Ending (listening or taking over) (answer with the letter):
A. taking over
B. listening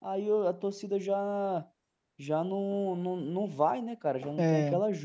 A